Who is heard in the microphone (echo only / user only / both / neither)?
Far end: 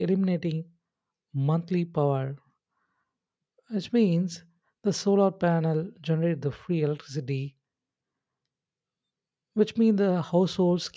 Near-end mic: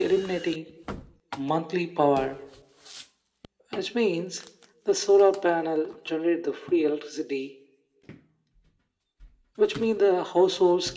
echo only